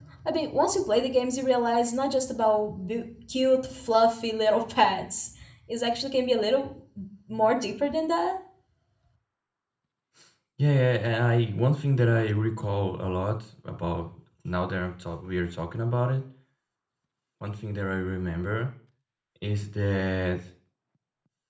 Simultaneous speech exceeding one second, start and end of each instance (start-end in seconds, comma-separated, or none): none